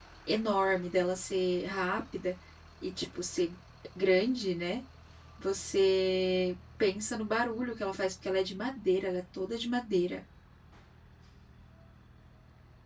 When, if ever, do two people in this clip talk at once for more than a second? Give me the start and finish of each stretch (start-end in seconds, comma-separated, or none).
none